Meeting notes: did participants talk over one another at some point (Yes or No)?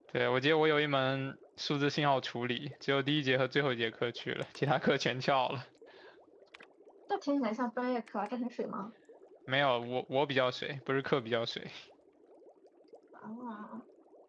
No